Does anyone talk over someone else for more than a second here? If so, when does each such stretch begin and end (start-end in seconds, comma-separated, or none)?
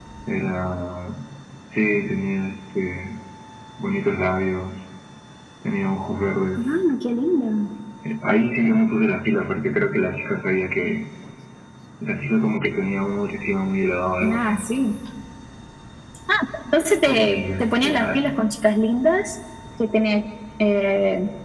17.1-18.3